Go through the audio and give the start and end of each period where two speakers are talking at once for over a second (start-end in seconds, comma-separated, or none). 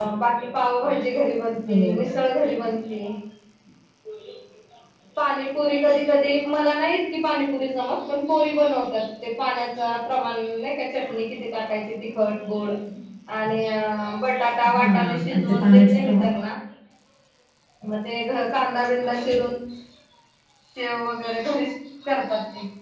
14.7-16.2